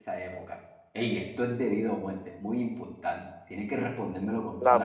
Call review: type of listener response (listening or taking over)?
taking over